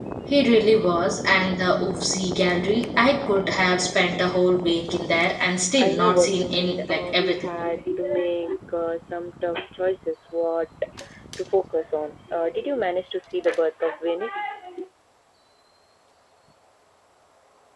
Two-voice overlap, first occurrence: 5.8 s

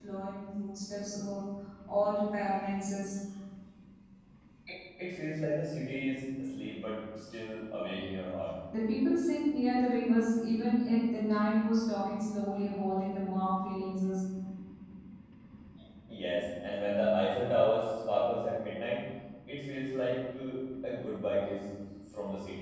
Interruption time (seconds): none

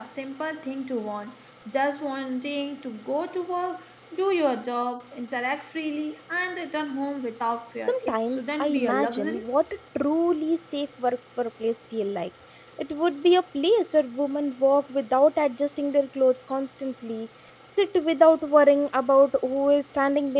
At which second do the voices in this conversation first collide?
7.8 s

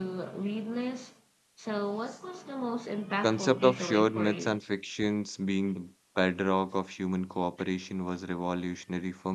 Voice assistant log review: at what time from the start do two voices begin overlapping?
3.2 s

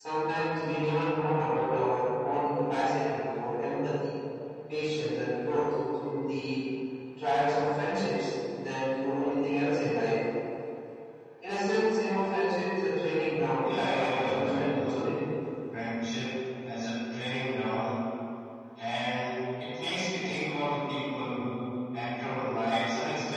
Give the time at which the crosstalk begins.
13.6 s

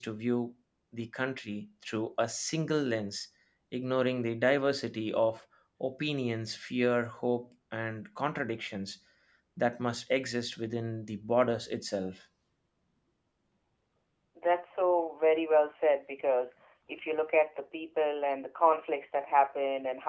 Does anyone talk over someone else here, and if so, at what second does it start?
none

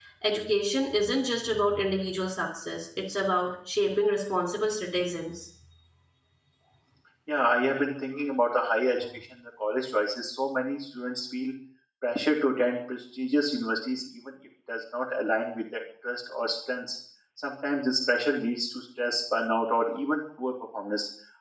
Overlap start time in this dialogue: none

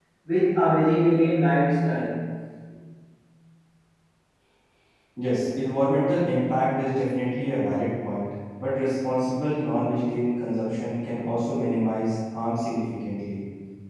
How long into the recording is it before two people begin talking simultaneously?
none

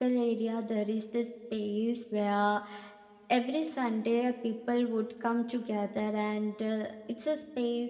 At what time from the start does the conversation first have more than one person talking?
none

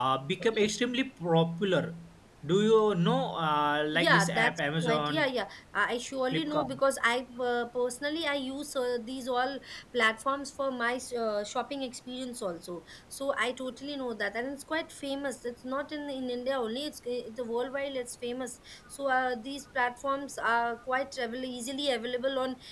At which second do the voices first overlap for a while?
3.9 s

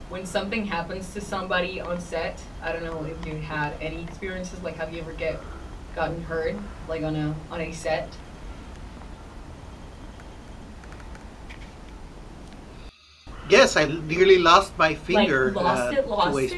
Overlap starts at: 15.1 s

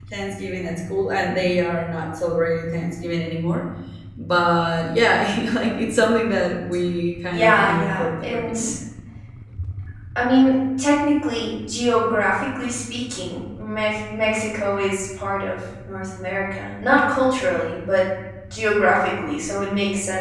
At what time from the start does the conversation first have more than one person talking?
7.3 s

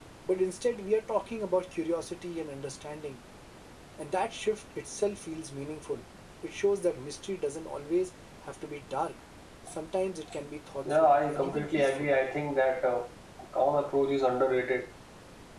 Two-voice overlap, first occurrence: 10.8 s

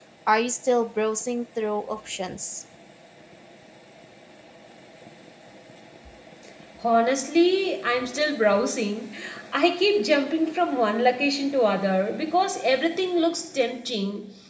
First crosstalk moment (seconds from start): none

